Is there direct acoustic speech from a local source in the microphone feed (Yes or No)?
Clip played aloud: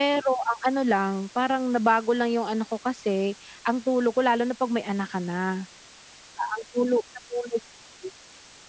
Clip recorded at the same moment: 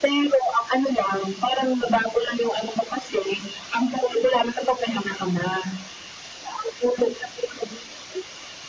No